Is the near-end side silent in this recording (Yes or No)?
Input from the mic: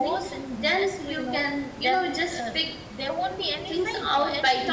No